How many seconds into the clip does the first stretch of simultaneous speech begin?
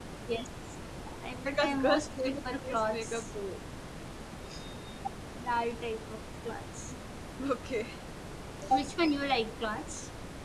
1.4 s

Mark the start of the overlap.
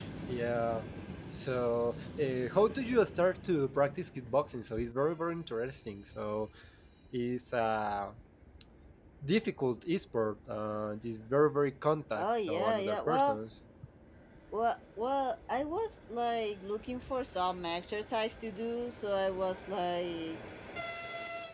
12.2 s

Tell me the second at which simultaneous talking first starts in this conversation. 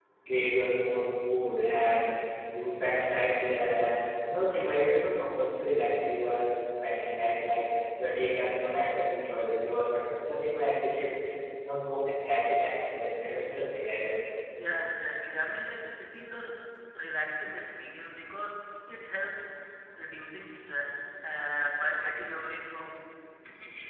none

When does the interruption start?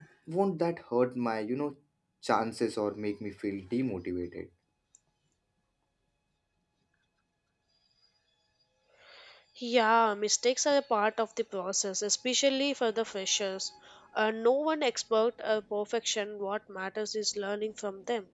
none

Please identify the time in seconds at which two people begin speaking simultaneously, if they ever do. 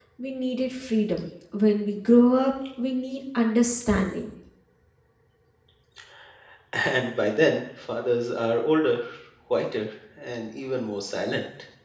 none

